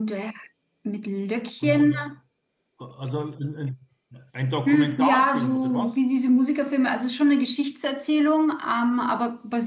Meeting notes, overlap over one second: present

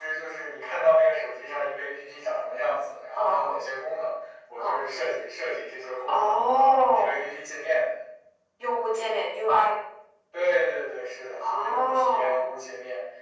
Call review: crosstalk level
present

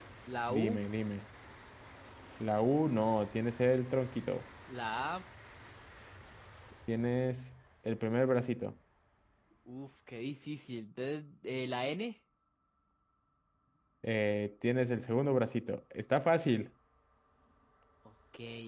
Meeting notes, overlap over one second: none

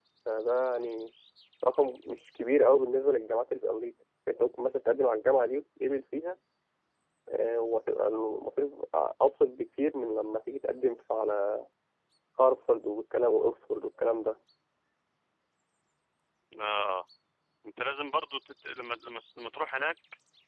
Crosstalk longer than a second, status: none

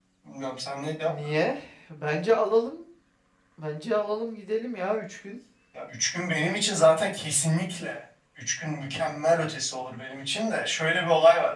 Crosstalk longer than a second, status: none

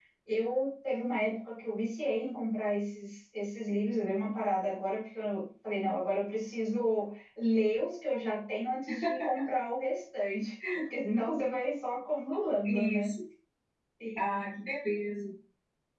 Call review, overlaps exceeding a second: none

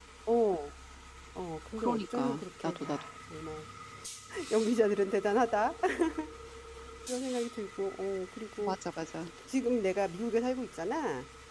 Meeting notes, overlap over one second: present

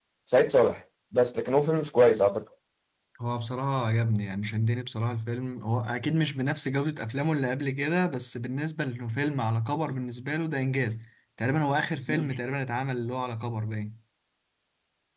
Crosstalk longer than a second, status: none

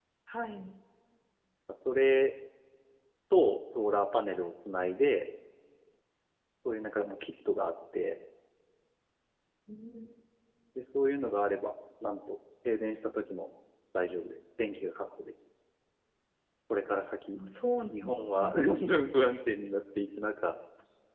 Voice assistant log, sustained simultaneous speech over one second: none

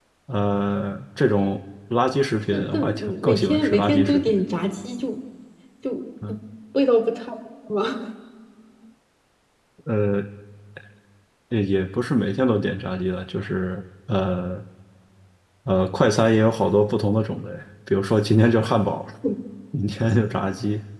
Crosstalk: present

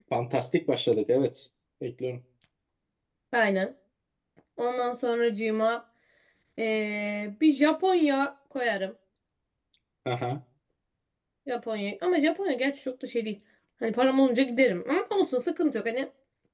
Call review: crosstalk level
none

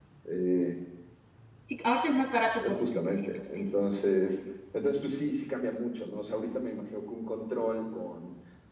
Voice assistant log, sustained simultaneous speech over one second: present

